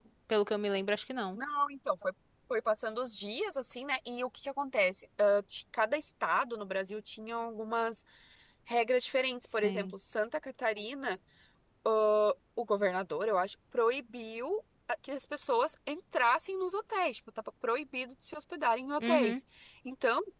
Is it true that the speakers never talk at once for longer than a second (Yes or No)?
Yes